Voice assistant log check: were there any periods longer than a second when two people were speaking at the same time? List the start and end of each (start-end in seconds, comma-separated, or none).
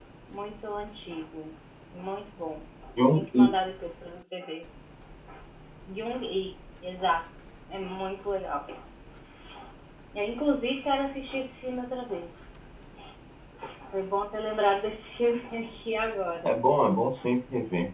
none